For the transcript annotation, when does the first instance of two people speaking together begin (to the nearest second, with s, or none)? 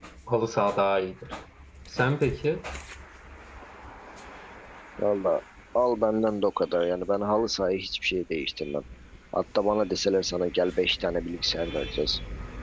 none